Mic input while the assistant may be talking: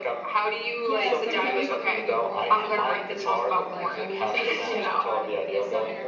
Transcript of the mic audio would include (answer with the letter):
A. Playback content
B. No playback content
A